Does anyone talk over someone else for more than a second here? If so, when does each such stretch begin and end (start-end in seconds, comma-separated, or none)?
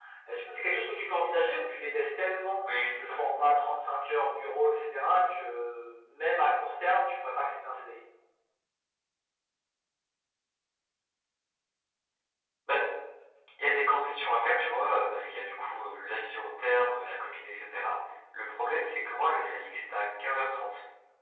none